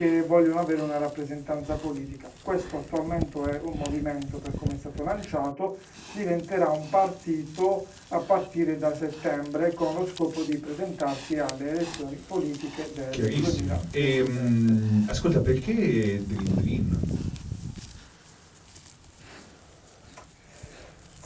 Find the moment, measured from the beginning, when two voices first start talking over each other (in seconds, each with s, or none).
13.1 s